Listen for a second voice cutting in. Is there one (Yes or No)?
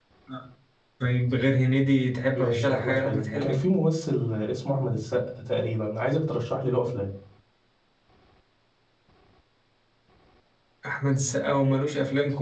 Yes